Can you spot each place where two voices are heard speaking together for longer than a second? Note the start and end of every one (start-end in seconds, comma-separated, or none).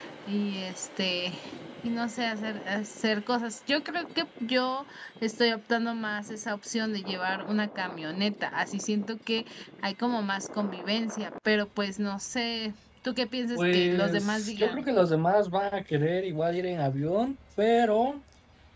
13.6-14.8